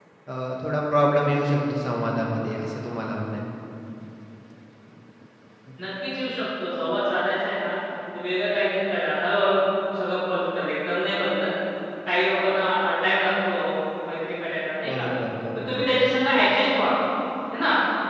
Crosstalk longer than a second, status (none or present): none